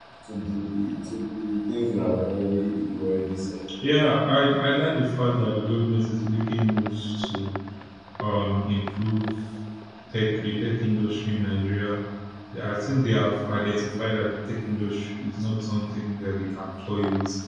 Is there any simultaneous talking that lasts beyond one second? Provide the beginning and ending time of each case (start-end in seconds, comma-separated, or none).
none